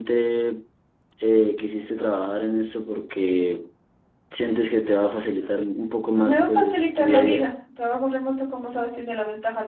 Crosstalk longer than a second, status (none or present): present